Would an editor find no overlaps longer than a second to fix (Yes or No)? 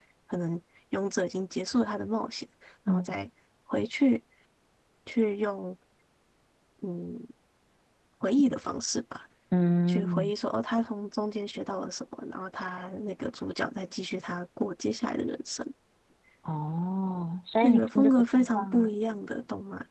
No